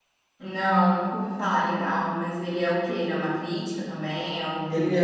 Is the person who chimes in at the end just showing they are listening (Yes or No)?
No